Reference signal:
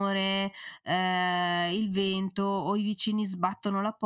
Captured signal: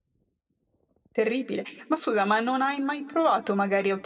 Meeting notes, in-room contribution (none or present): present